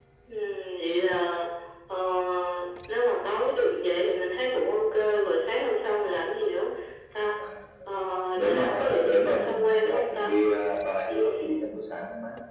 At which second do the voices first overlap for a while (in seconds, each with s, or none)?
8.4 s